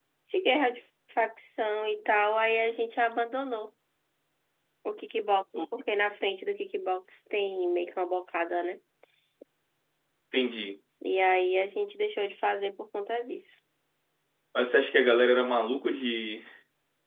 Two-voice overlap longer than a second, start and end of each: none

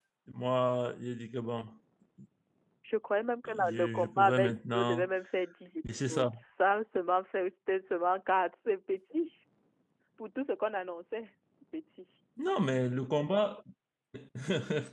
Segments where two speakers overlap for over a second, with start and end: 3.5-5.1

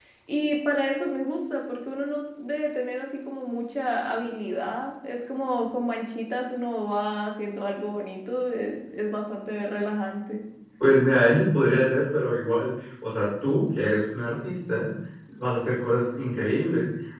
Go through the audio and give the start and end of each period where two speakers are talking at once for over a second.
none

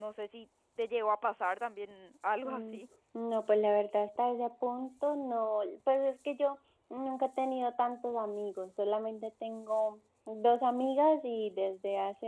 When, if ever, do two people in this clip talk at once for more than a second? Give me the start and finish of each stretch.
none

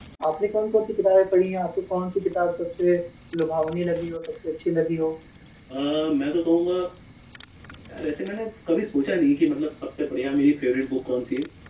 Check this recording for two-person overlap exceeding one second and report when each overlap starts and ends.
none

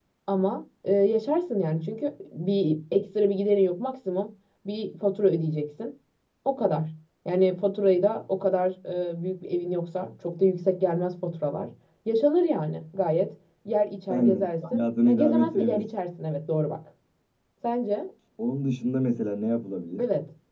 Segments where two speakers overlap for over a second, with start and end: 14.1-15.8

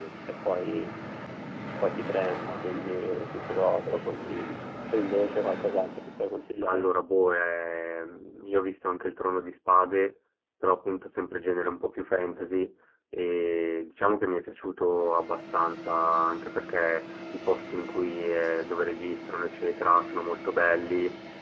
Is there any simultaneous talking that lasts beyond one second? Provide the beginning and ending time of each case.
none

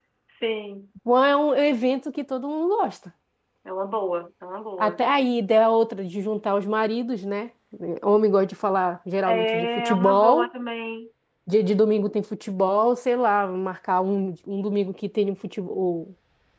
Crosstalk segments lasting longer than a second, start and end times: 9.3-10.5

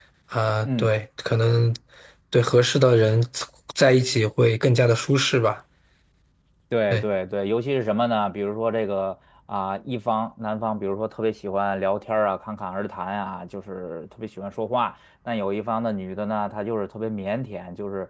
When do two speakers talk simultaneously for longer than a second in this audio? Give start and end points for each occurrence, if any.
none

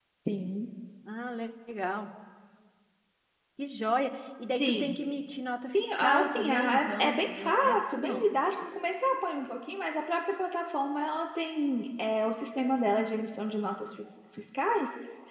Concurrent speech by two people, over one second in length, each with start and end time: 5.7-8.2

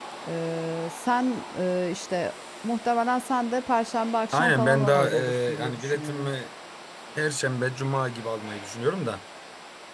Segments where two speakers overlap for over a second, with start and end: 4.3-6.3

